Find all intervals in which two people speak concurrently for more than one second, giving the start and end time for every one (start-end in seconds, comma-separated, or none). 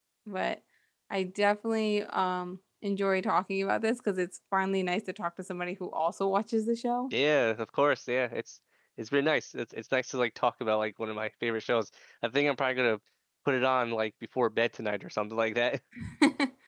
none